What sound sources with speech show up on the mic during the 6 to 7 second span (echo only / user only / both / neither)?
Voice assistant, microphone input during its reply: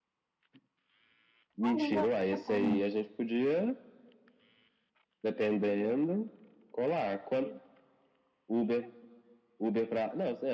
echo only